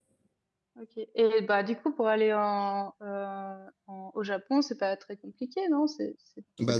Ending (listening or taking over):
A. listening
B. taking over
B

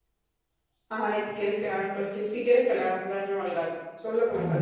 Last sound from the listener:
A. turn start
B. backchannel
A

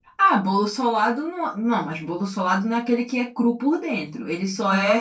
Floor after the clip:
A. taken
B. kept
B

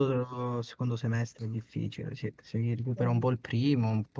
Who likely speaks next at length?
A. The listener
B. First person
B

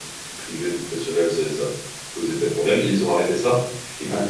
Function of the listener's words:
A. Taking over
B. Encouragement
B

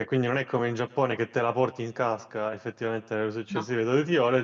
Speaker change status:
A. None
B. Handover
A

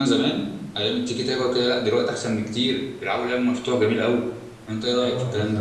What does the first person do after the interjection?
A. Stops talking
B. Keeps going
A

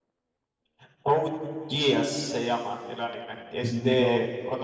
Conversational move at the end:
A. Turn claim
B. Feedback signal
B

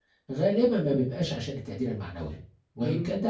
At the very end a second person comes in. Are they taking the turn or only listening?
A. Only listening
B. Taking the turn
A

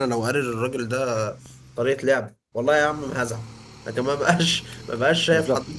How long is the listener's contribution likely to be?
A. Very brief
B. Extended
A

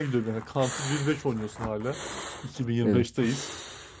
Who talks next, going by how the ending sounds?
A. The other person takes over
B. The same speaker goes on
B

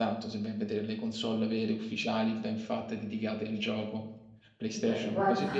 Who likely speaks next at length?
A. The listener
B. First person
A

